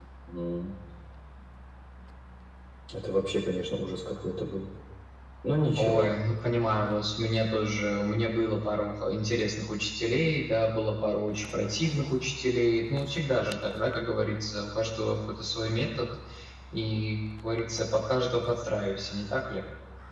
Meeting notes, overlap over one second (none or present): none